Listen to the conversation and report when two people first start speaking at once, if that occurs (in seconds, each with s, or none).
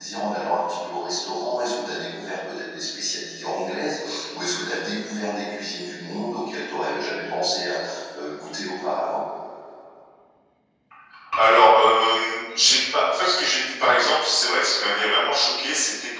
none